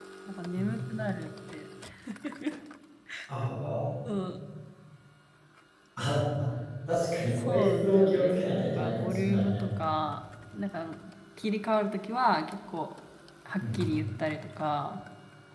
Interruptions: present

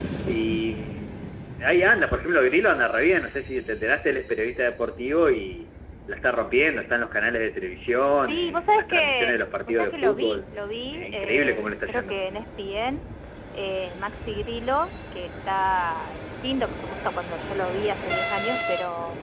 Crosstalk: present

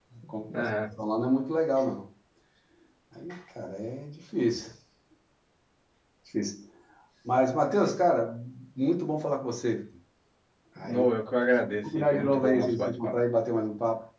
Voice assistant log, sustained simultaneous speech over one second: present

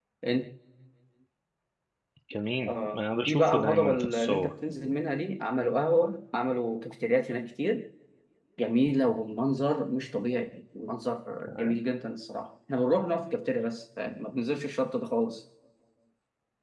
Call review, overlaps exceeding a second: present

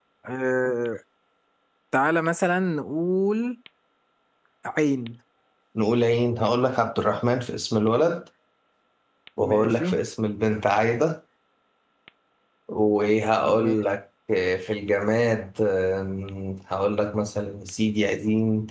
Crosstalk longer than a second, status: none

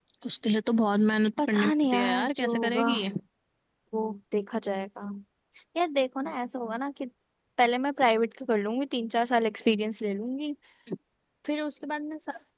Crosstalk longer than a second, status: present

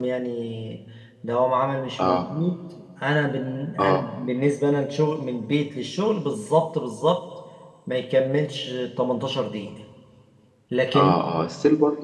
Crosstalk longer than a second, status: none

